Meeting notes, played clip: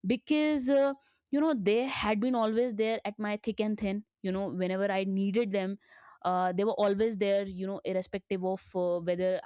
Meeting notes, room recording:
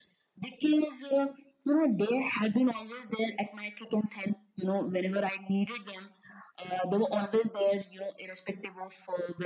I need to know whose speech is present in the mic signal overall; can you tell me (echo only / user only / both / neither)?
echo only